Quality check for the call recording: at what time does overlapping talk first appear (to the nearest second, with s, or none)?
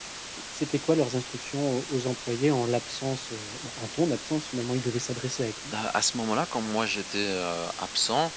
none